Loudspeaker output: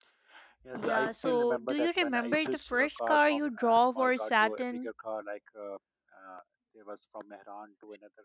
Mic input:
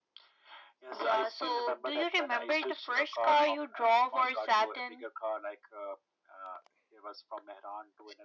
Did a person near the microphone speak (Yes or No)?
No